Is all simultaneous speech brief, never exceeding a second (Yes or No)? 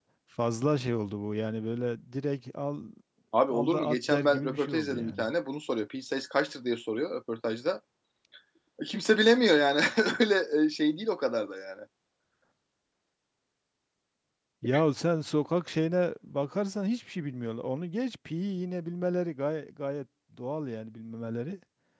No